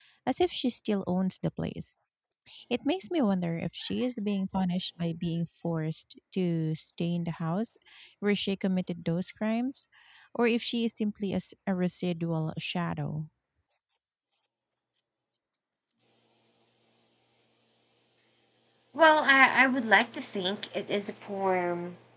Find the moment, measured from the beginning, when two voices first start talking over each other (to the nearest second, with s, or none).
none